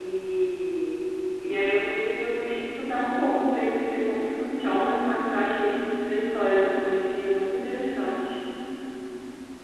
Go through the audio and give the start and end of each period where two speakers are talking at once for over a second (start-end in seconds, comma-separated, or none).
none